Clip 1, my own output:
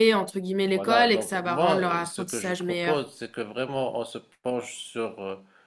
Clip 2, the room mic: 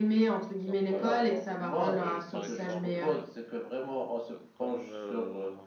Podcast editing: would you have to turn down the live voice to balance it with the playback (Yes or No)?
No